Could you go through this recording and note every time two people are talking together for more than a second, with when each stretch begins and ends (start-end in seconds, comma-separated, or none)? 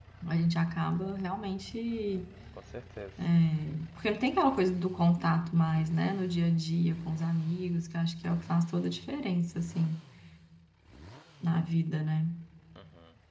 none